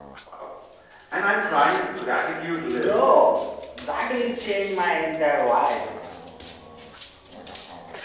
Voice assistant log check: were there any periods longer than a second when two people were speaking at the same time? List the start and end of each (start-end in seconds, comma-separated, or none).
none